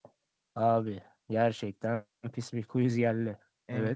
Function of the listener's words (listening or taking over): taking over